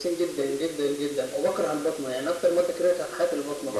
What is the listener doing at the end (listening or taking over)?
taking over